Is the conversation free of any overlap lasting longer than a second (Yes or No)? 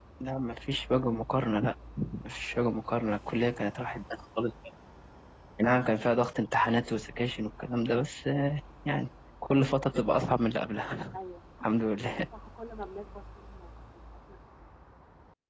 Yes